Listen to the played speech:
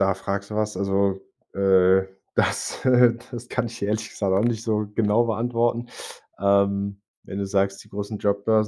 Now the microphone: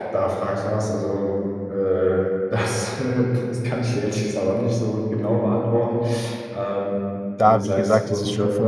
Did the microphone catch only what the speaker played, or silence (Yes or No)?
No